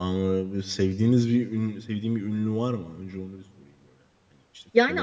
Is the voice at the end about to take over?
Yes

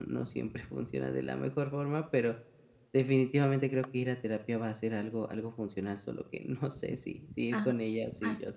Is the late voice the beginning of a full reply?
Yes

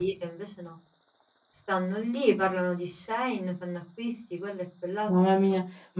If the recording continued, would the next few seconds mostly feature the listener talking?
Yes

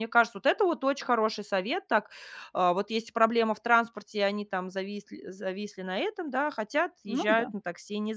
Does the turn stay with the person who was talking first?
Yes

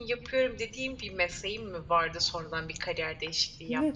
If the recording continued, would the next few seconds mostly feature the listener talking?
Yes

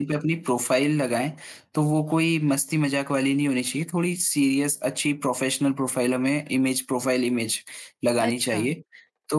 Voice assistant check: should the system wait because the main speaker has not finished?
Yes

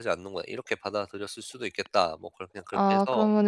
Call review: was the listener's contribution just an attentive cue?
No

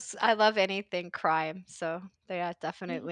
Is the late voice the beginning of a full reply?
Yes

